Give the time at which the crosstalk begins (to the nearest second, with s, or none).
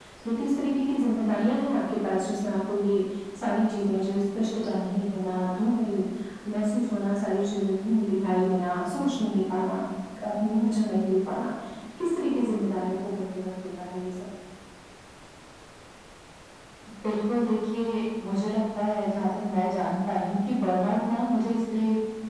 none